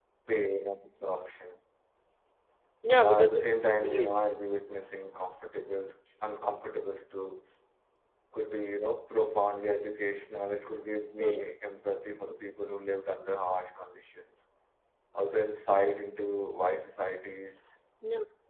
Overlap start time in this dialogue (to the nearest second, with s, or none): 3 s